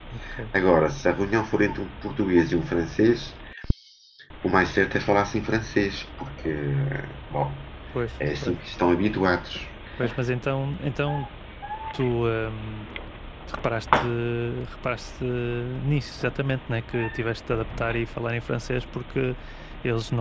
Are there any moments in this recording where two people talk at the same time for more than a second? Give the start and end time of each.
none

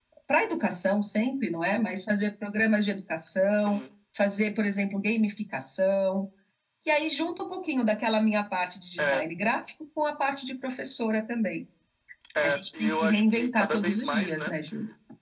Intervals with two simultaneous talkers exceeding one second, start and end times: 12.4-14.5

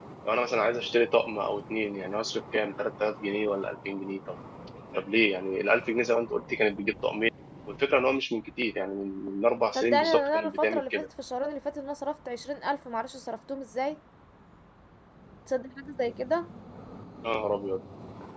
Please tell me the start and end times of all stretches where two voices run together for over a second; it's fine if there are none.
9.8-11.1

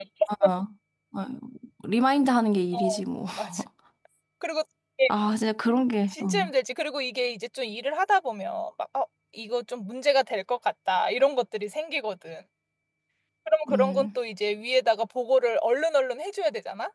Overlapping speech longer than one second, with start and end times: none

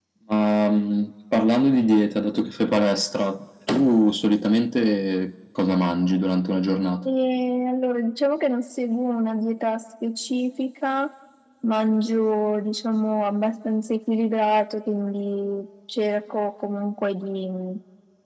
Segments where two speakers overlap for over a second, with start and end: none

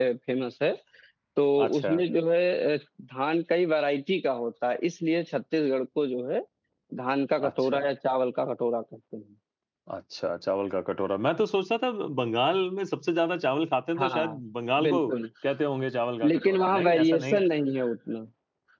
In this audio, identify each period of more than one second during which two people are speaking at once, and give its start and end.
16.3-17.5

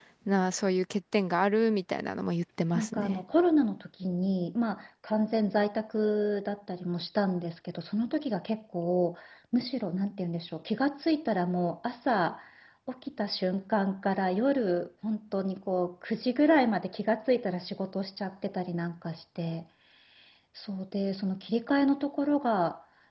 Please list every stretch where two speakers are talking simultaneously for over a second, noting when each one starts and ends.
none

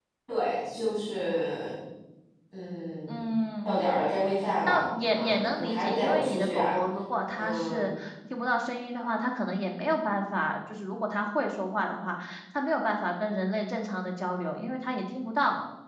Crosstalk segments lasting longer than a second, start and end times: 4.7-6.8

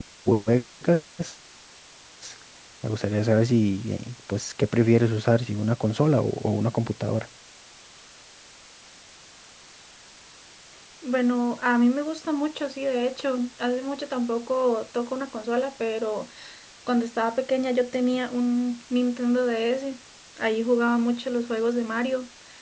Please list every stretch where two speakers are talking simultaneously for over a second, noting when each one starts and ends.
none

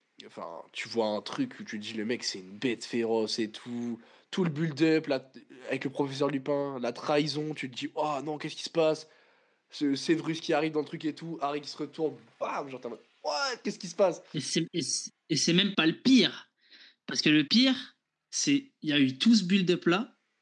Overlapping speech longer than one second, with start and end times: none

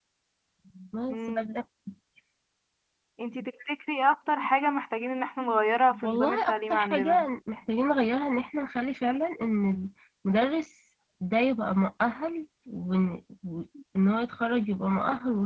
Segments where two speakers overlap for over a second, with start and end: 6.0-7.2

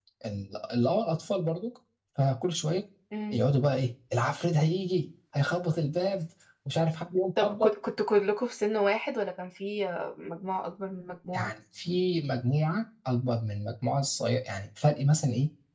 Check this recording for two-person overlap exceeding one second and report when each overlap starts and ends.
none

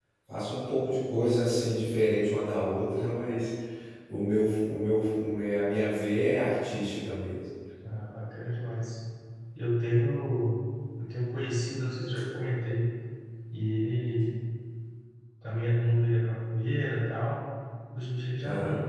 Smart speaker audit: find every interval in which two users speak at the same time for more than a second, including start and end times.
none

